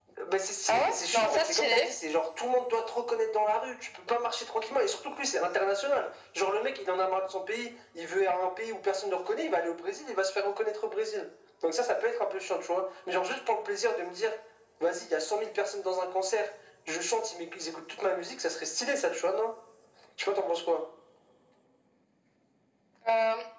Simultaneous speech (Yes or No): Yes